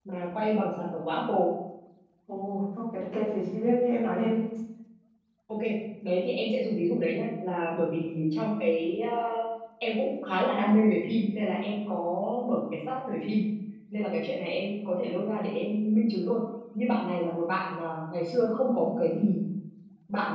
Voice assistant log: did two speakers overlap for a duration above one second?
No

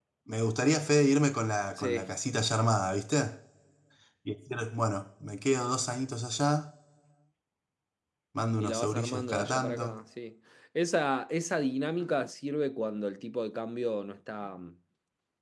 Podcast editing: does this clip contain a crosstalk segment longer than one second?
Yes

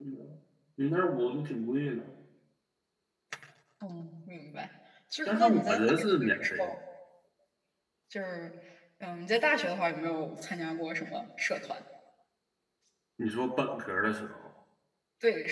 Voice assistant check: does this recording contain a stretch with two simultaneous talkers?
Yes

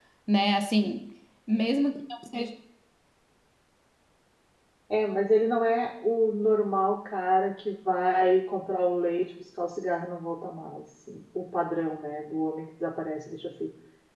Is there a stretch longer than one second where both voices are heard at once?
No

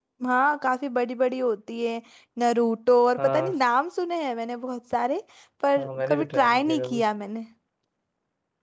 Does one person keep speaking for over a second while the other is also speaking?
Yes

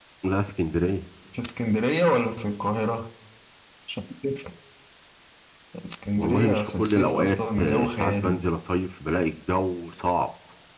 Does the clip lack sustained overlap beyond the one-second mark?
No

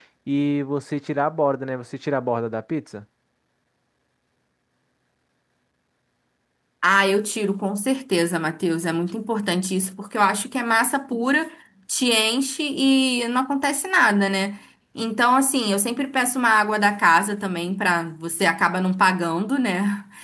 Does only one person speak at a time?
Yes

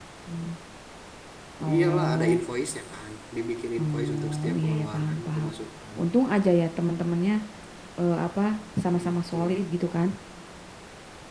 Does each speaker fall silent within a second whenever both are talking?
No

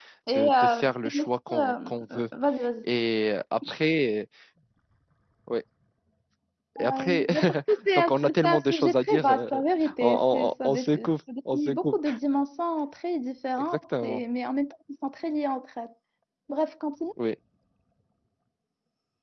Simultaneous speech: Yes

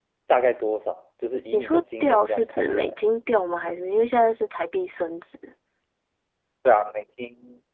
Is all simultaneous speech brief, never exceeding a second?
No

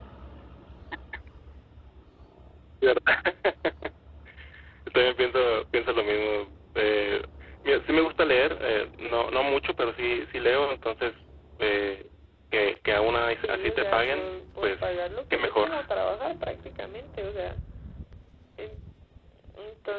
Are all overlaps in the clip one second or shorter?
No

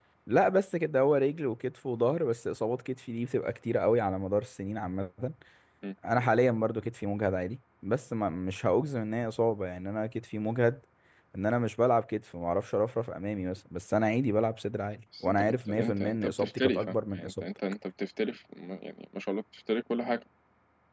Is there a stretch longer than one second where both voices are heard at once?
Yes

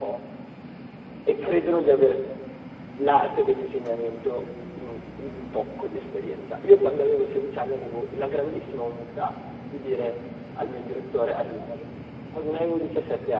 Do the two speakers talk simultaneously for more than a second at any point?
No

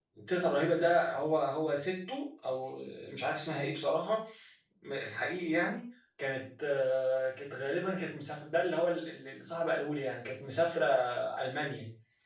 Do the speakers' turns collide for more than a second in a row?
No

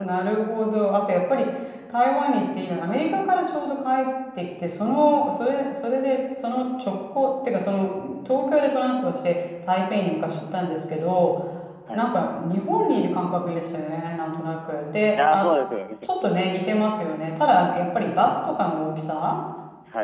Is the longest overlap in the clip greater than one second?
No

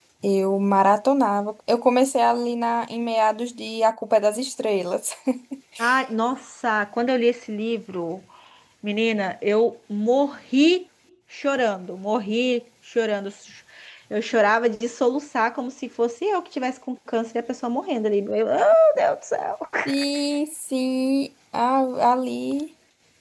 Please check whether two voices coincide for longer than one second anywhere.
No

